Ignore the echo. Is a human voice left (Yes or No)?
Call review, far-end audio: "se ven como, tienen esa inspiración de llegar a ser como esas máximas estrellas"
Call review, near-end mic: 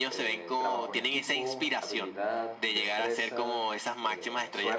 Yes